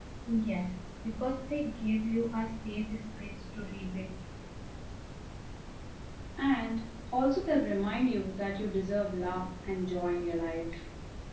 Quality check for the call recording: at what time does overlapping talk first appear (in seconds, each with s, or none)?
none